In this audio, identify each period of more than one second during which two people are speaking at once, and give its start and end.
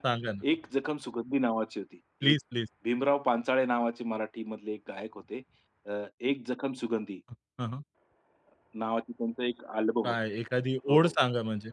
none

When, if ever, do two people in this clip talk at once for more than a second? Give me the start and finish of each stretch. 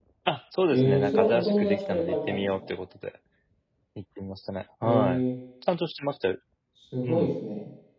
0.7-2.5

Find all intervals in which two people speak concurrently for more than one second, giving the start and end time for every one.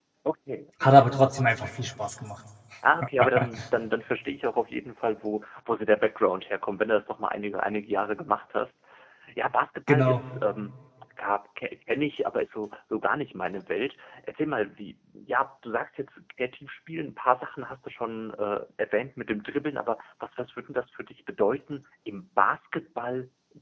none

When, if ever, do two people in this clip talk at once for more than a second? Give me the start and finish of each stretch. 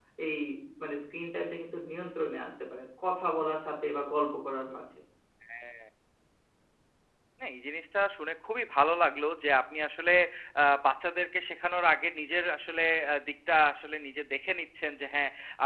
none

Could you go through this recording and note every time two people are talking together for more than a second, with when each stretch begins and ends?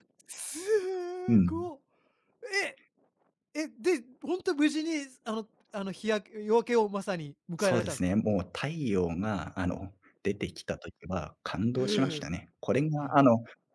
none

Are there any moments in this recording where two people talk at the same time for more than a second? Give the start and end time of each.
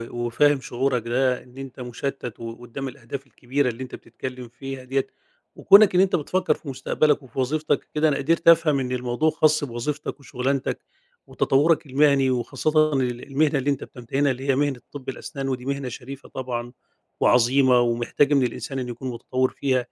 none

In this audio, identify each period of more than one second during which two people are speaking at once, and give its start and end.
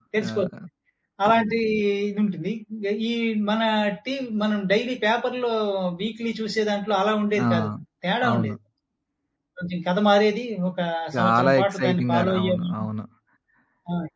11.2-12.9

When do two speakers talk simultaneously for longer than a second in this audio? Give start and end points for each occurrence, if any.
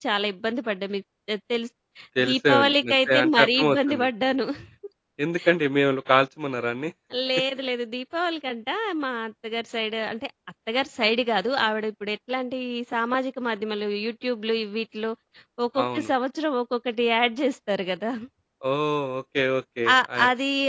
2.3-4.1

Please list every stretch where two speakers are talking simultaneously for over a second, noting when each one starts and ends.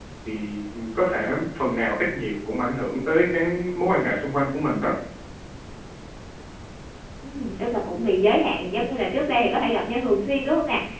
none

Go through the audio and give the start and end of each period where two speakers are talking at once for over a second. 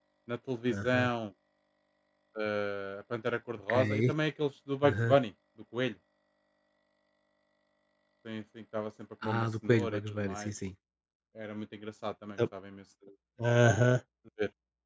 9.2-10.5

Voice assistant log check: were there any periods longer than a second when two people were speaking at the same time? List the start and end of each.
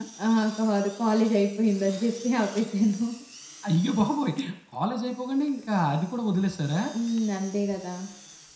none

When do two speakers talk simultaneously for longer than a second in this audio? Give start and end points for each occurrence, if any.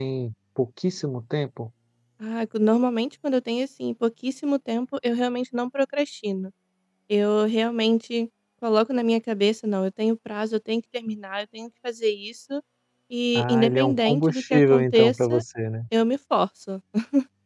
13.3-15.4

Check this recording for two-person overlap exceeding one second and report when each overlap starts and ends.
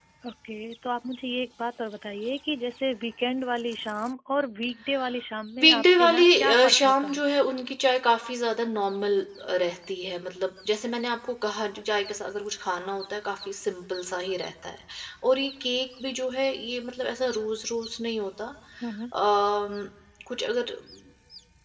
5.6-7.2

